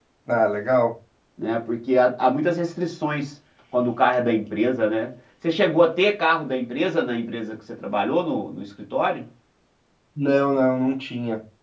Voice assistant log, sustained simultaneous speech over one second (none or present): none